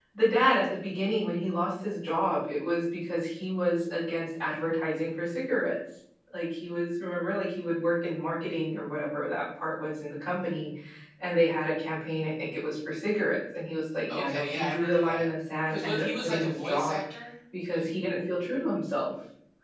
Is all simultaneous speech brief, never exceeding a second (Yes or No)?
No